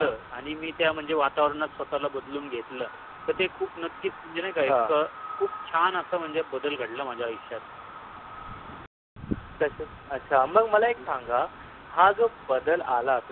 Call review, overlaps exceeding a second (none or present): none